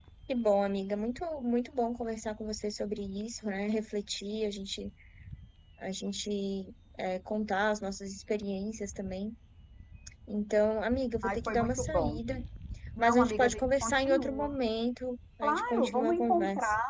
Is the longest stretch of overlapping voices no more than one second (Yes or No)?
No